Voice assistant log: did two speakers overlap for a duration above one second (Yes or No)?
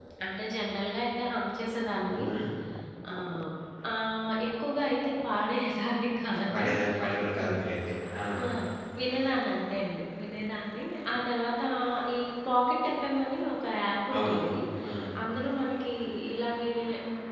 No